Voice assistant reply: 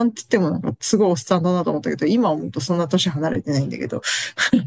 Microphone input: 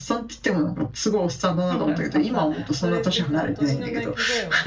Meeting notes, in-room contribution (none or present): present